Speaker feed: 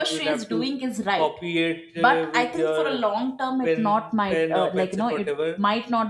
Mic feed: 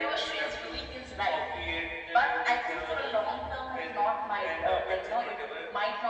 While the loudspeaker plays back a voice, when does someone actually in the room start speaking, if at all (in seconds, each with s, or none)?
none